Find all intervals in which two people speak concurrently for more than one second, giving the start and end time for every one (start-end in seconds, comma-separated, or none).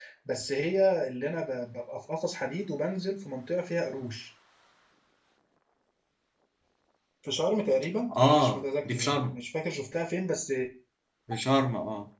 8.1-9.4